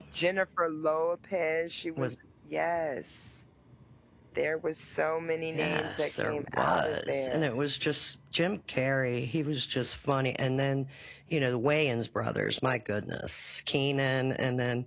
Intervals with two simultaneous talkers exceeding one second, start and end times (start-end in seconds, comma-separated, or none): 5.5-7.5